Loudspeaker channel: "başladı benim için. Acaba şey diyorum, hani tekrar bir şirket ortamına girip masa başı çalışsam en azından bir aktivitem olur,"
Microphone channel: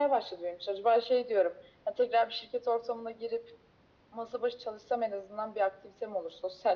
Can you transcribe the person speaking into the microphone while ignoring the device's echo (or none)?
none